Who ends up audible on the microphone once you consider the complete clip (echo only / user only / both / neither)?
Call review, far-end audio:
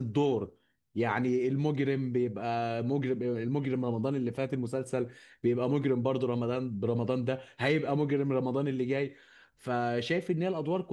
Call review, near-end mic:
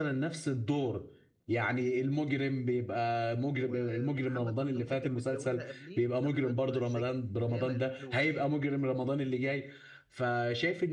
both